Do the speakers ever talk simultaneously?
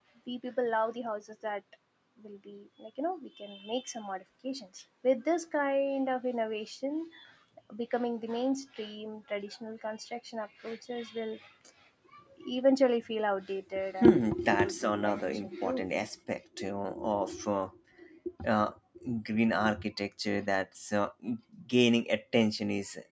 Yes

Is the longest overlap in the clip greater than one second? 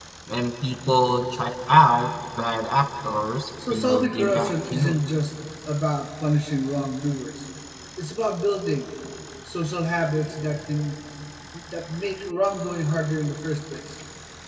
Yes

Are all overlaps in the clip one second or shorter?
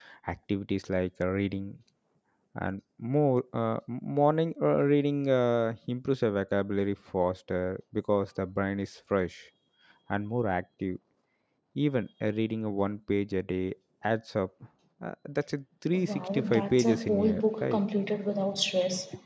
No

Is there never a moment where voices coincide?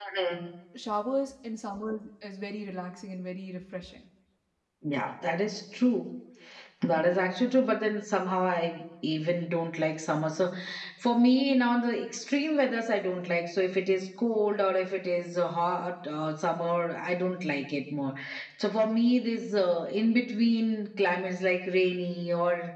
Yes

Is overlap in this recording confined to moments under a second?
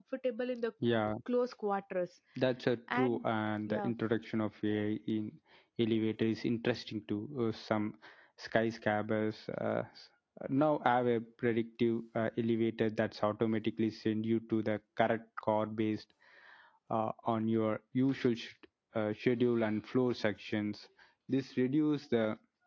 Yes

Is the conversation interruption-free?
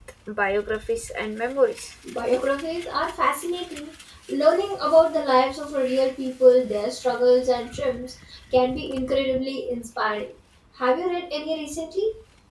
Yes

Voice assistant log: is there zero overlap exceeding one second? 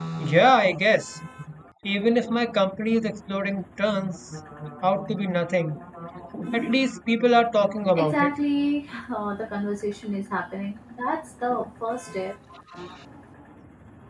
Yes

